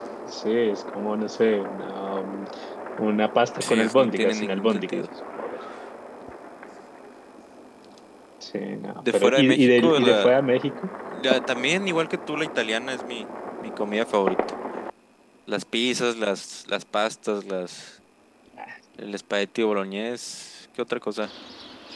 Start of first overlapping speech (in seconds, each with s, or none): 3.6 s